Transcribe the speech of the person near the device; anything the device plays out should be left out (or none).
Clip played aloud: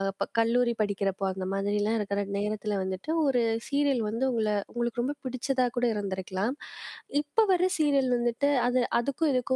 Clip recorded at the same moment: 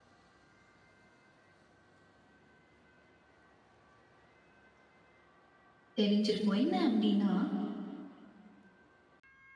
தெரிஞ்சிருக்கும். என்ன அப்பிடின்னா